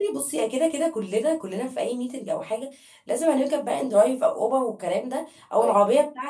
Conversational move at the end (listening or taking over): listening